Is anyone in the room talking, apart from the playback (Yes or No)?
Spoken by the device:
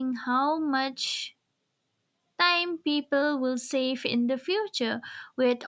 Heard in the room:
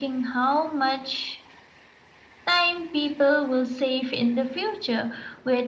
No